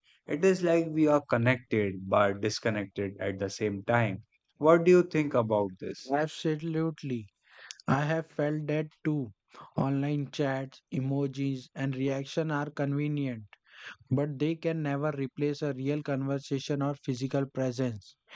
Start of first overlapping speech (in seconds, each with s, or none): none